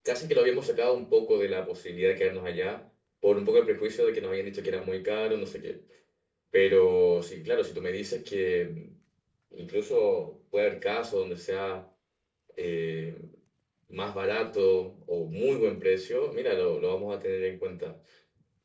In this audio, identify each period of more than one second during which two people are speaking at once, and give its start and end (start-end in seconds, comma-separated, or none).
none